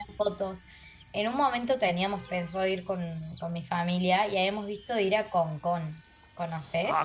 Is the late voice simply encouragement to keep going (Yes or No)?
No